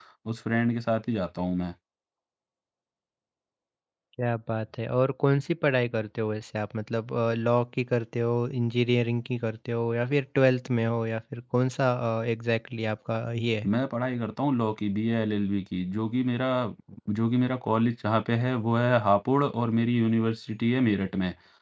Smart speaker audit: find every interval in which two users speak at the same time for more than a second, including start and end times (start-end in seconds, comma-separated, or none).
none